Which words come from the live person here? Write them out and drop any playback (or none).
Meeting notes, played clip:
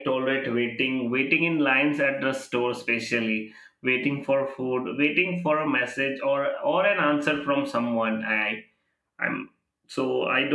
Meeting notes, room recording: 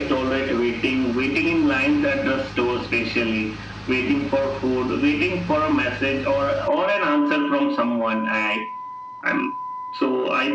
none